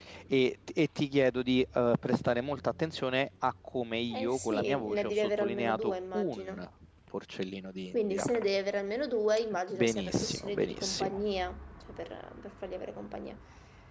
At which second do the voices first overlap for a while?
4.1 s

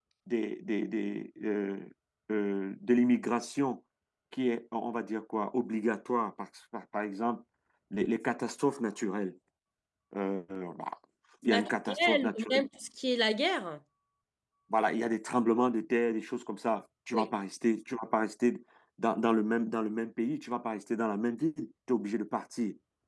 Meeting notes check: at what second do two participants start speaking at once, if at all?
11.4 s

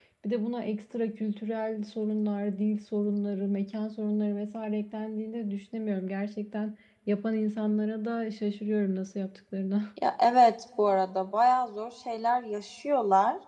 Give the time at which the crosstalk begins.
none

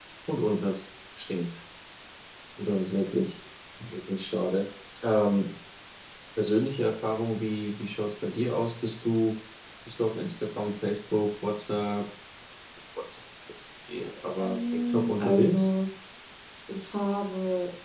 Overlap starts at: 14.4 s

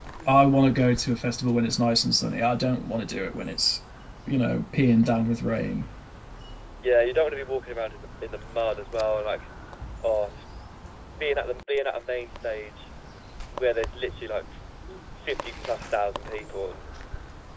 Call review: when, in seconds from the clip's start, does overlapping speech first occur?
none

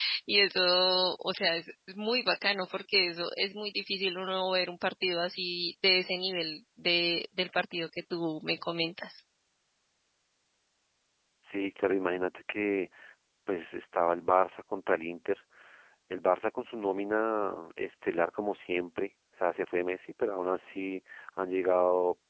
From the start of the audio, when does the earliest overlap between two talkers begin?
none

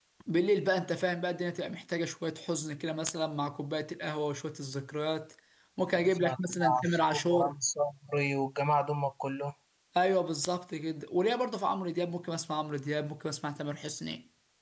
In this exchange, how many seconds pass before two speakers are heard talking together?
6.0 s

